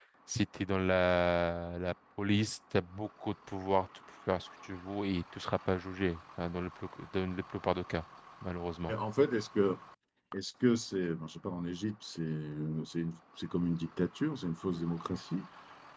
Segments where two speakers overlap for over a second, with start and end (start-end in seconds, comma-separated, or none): none